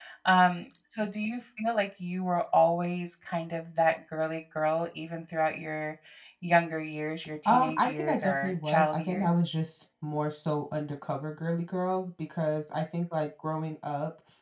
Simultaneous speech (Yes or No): Yes